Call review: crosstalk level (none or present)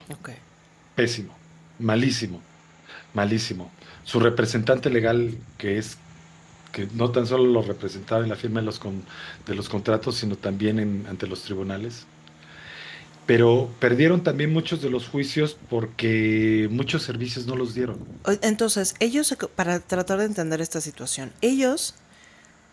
none